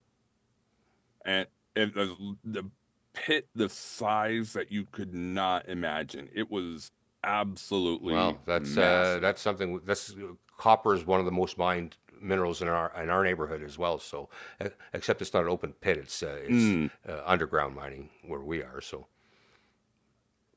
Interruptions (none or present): present